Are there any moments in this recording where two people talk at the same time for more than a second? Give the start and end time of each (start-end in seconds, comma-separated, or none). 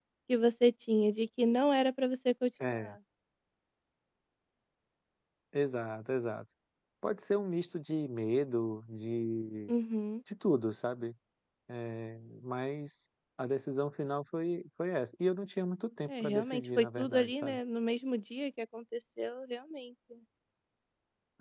16.1-17.6